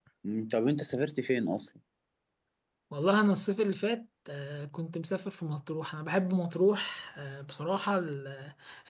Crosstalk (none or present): none